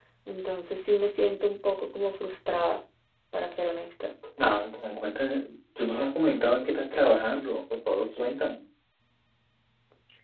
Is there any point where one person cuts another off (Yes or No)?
No